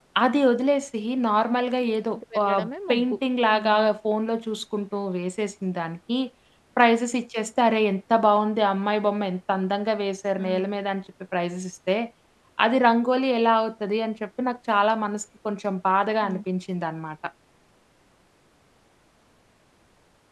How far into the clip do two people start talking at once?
2 s

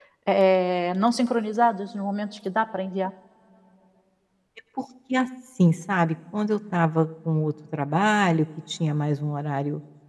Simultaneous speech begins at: none

